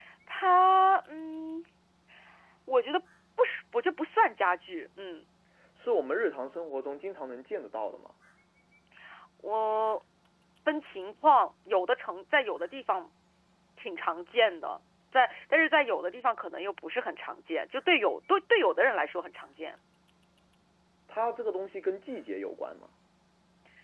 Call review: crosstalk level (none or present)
none